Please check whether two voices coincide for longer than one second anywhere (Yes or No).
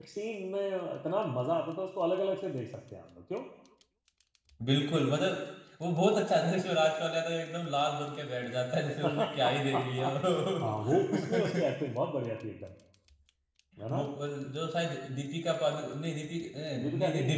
Yes